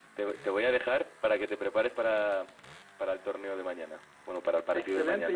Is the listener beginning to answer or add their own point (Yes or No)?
Yes